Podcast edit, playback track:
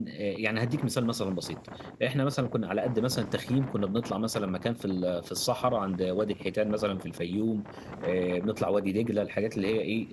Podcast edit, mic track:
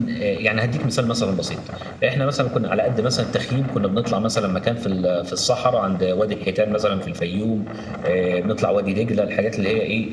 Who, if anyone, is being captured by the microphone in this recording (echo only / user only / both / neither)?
echo only